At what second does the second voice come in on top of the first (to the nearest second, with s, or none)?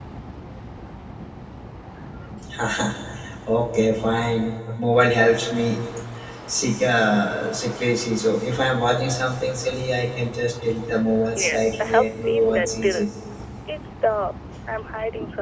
11 s